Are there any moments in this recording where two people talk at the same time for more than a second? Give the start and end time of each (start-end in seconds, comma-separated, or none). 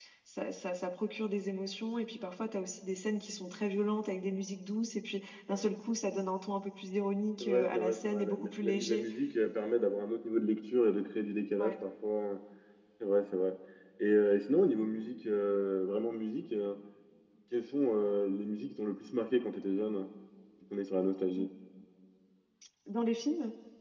7.4-9.0